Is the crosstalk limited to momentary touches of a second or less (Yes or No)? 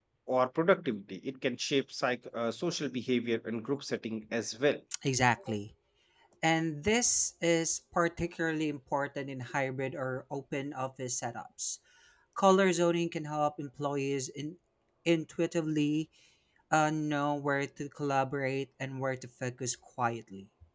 Yes